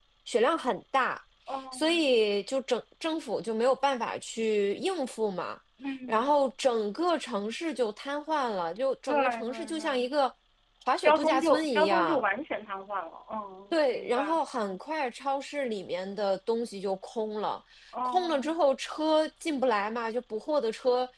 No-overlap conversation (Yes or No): No